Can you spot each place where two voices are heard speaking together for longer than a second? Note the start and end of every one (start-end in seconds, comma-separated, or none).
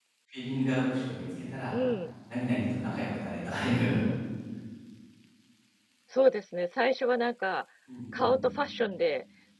none